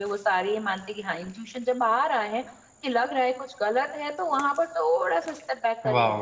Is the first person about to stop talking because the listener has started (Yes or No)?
Yes